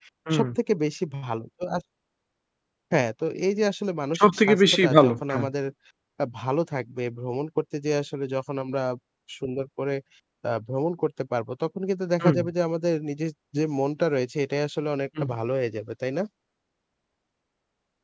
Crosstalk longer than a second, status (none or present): present